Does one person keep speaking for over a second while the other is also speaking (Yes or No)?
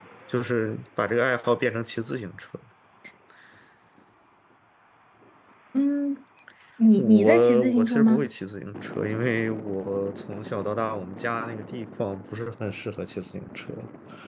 Yes